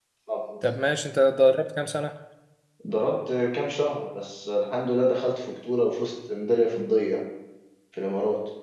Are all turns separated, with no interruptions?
Yes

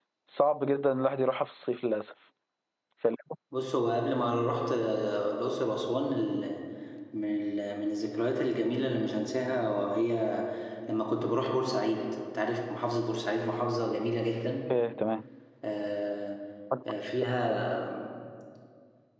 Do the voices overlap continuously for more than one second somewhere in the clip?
No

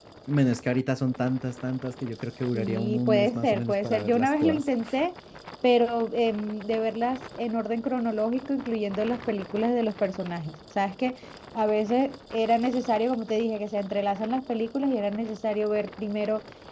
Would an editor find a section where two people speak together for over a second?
Yes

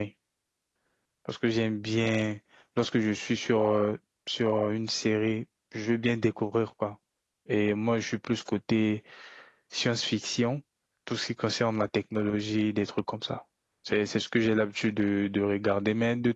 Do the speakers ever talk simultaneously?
No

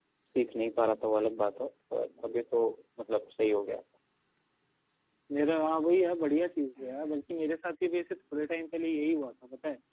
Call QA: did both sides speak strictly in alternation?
Yes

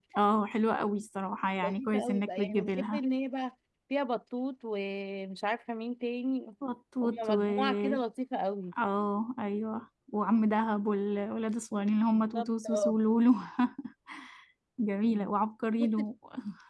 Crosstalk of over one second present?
Yes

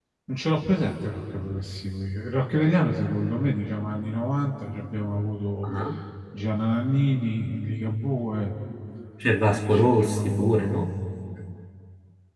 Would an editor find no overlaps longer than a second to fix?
No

